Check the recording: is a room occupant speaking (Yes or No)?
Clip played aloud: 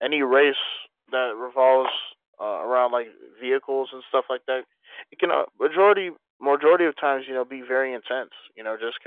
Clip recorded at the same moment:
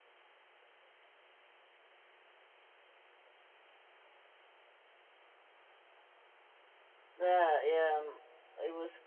Yes